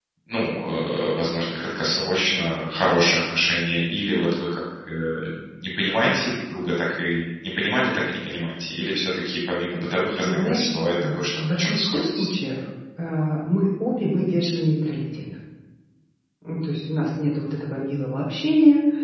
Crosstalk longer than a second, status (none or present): present